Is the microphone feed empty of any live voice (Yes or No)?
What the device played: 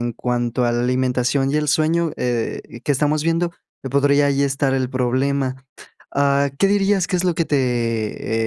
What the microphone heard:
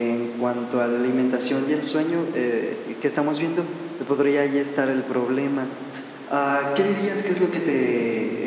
Yes